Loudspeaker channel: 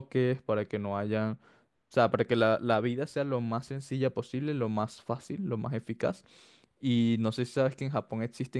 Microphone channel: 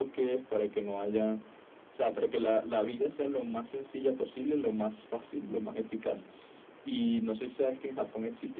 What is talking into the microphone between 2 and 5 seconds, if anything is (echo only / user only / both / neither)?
echo only